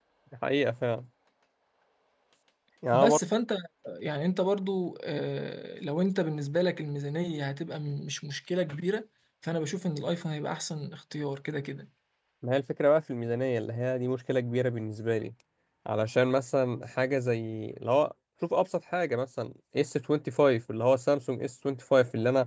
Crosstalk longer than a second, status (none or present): none